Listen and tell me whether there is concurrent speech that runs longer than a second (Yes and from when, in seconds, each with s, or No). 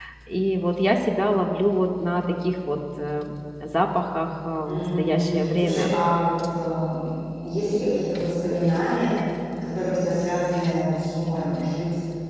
Yes, from 4.7 s